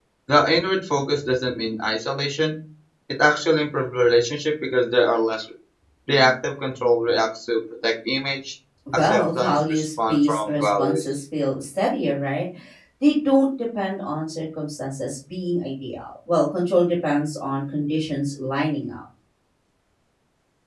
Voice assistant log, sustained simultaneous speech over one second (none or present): present